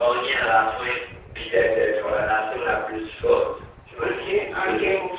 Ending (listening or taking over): taking over